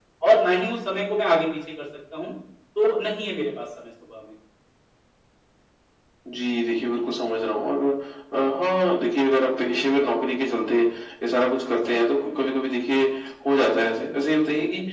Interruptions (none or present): none